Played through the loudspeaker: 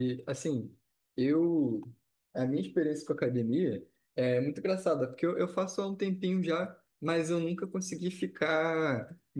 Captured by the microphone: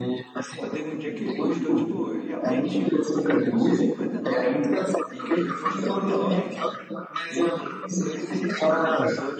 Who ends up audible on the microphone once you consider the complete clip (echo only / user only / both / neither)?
both